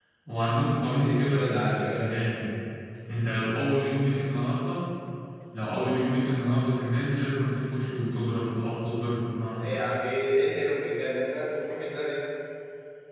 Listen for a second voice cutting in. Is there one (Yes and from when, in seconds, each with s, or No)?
Yes, from 0.9 s